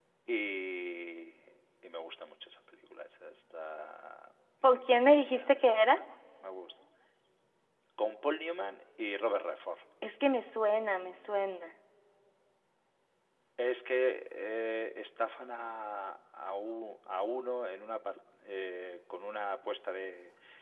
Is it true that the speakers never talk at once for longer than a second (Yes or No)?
No